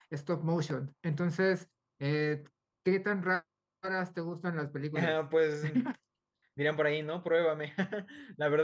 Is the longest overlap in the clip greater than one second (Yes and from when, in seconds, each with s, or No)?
No